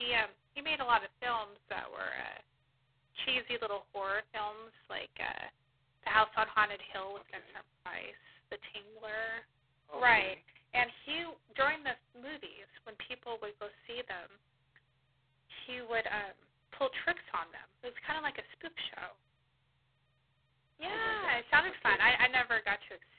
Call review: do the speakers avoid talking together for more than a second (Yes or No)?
No